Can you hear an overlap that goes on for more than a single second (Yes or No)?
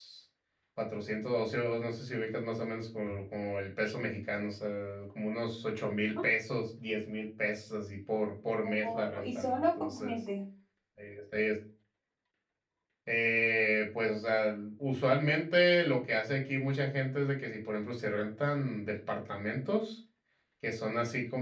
Yes